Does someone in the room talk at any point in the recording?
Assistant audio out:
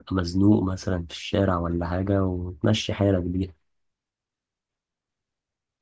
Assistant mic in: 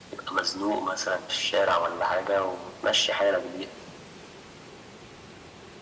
No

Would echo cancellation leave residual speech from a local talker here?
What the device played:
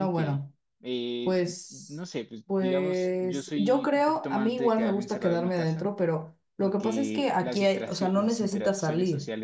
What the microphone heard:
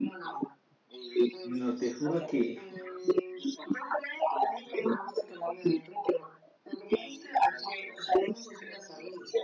Yes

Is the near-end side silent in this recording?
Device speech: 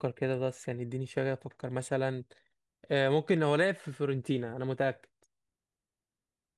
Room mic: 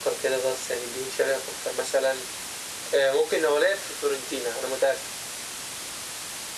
Yes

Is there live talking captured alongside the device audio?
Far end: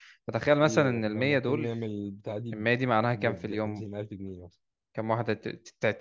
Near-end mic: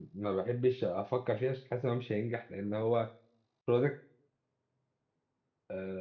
Yes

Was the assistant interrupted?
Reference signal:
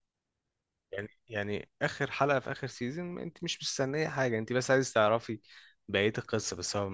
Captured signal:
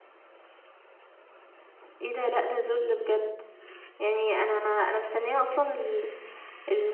Yes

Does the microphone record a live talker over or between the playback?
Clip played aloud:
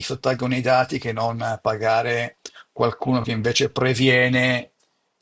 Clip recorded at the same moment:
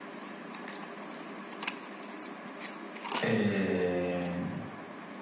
Yes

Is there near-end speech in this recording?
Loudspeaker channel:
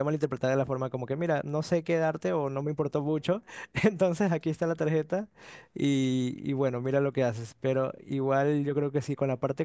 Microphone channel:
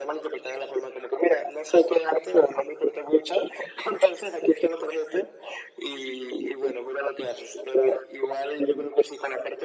No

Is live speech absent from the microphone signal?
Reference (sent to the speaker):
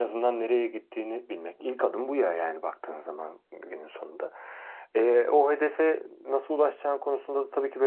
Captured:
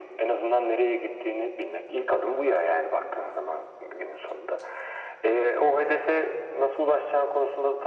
Yes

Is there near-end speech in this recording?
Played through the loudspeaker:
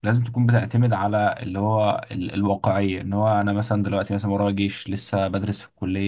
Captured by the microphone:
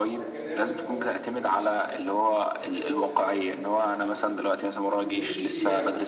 Yes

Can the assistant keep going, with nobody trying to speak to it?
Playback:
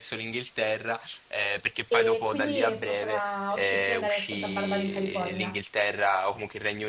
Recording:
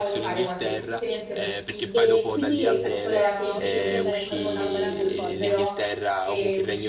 No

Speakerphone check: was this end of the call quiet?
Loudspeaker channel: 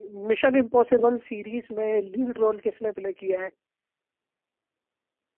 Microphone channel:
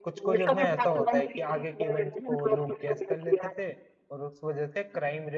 No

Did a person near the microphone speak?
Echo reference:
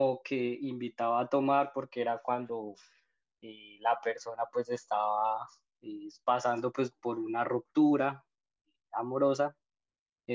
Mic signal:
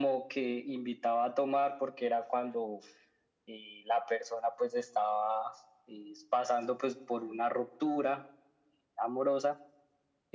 No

